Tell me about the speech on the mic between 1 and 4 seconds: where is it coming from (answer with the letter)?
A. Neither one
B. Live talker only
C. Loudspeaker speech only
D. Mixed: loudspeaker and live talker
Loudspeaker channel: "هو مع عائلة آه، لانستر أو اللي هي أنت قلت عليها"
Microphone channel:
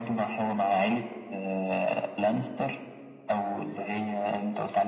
C